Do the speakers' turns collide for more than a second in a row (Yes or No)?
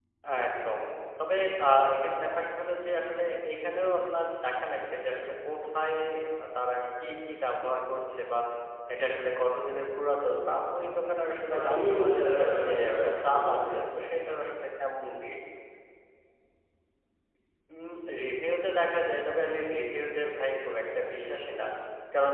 Yes